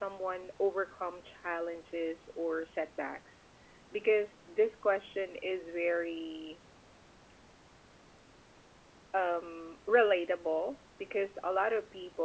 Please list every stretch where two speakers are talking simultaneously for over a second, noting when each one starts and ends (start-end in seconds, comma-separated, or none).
none